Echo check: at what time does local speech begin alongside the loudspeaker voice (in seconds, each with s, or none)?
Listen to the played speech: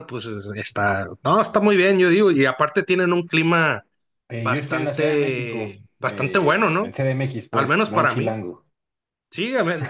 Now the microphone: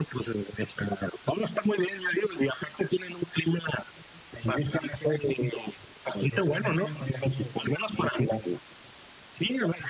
6.3 s